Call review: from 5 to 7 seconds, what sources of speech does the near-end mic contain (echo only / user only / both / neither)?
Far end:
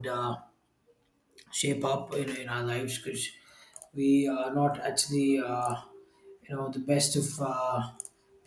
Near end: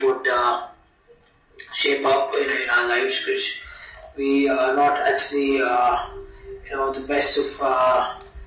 echo only